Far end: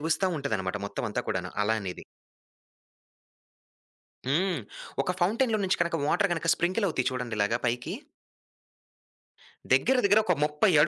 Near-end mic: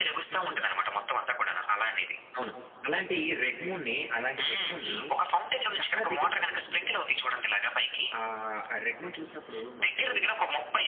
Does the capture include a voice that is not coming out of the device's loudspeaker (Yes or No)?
Yes